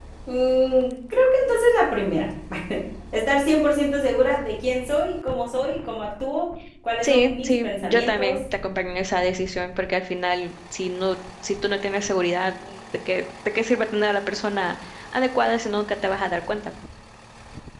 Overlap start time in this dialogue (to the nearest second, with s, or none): 7 s